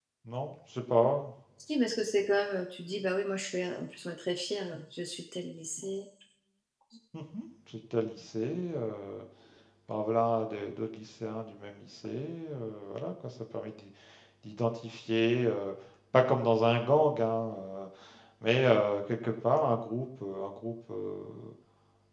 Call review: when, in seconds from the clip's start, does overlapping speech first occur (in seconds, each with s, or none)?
none